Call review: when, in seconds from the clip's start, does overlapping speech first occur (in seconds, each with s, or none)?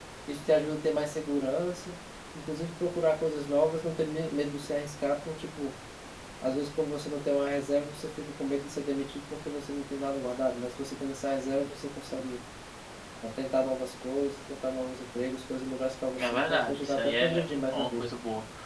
16.2 s